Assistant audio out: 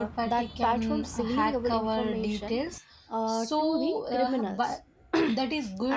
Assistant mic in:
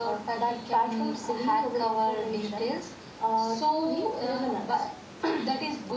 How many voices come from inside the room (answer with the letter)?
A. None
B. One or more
A